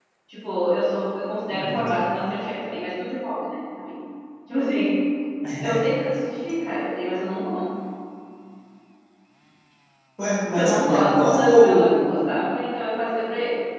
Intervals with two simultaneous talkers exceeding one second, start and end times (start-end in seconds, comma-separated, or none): 10.6-12.2